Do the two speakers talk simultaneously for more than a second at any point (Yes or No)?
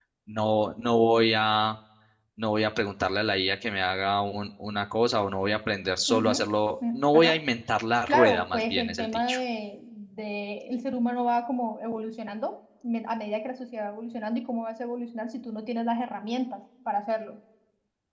Yes